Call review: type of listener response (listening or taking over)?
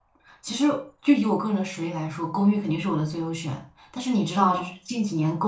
listening